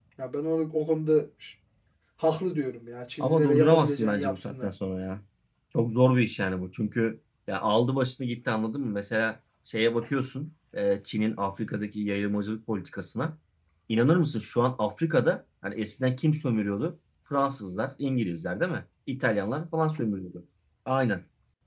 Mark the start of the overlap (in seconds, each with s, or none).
3.2 s